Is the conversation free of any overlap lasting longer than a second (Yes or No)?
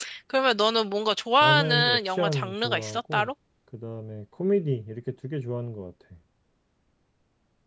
No